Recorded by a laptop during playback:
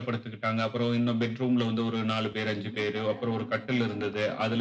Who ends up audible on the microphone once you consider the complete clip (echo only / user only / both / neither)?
both